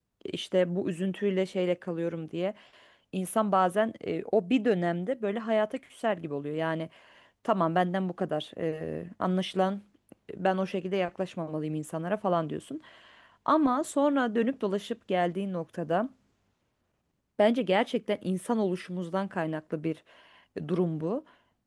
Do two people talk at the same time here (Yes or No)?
No